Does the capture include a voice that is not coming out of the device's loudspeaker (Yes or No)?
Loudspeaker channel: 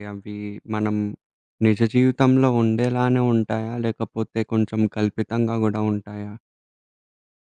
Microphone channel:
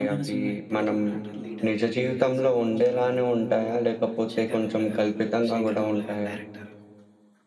Yes